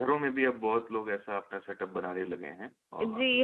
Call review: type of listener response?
taking over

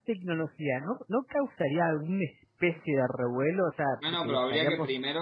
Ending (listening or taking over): taking over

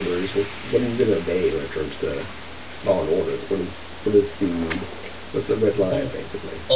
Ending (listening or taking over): taking over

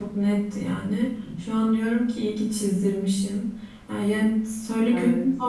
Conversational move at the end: listening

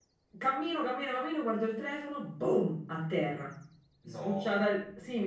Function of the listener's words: listening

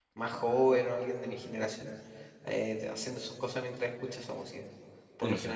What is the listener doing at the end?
listening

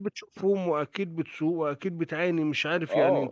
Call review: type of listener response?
taking over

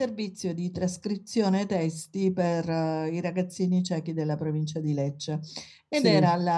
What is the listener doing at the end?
listening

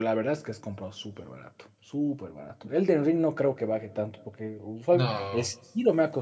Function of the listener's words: listening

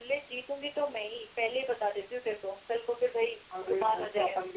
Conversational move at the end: taking over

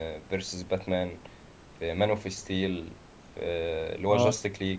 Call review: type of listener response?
listening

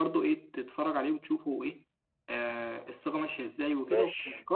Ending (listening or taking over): listening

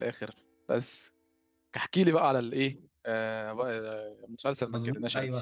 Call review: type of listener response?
taking over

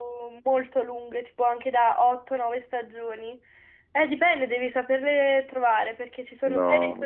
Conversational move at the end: listening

